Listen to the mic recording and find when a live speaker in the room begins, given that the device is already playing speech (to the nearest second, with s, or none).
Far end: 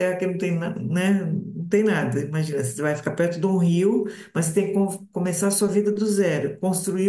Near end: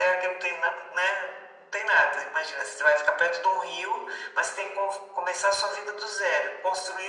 none